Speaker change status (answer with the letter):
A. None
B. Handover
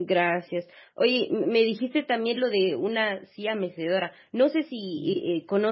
A